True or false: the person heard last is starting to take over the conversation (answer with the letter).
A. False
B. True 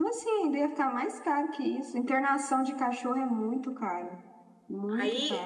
B